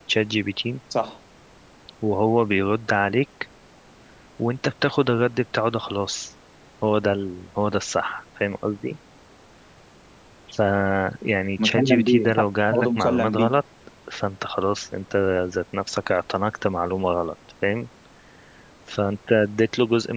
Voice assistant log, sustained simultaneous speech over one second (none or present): present